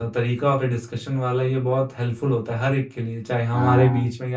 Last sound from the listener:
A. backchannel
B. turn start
A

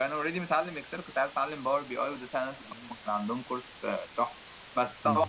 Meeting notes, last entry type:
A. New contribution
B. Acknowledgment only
B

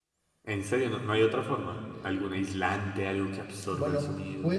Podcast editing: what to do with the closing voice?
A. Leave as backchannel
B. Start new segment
B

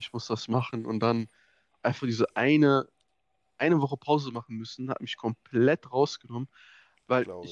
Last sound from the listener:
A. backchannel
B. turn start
A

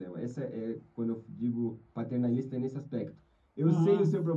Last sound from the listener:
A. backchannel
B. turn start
A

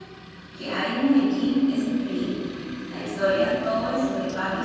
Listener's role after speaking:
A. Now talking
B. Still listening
B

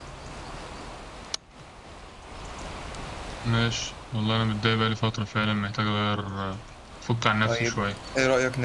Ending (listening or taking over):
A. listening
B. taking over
B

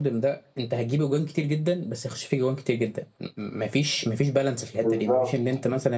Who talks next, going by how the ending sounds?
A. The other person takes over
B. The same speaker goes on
B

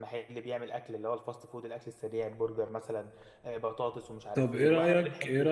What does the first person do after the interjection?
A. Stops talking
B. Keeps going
A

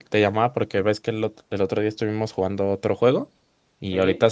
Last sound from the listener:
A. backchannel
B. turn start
A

